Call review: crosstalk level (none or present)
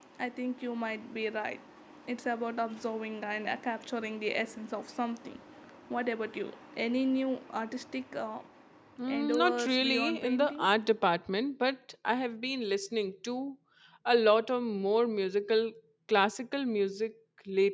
present